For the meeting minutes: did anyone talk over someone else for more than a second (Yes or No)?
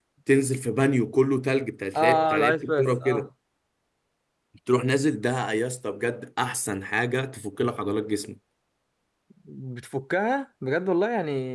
Yes